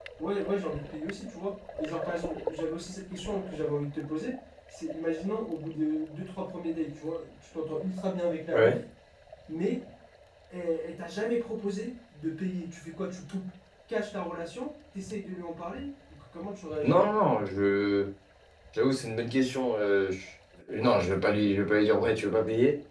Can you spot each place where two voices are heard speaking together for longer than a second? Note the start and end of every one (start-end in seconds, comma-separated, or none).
none